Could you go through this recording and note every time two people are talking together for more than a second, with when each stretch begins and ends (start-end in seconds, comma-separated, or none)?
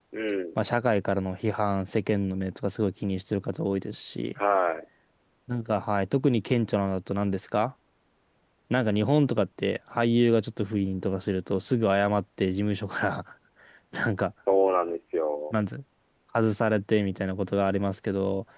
none